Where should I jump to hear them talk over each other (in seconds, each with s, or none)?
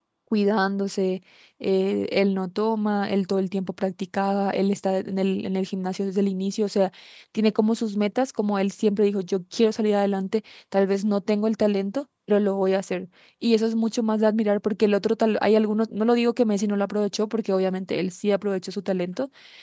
none